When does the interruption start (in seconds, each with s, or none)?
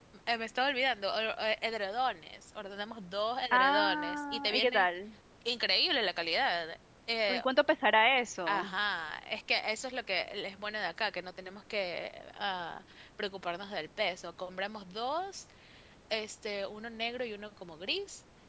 3.5 s